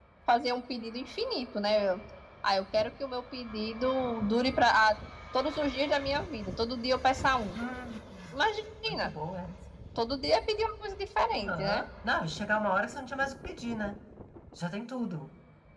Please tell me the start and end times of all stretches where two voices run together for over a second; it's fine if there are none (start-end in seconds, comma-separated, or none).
none